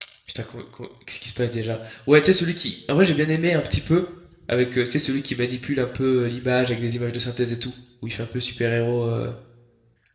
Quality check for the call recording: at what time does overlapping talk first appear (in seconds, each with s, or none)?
none